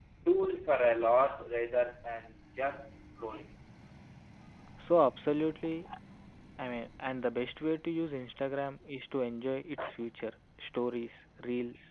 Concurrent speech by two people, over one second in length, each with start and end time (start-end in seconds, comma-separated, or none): none